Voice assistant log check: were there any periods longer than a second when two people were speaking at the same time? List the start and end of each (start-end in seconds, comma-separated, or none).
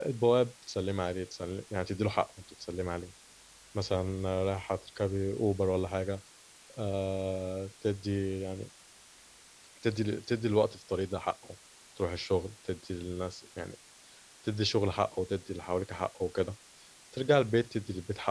none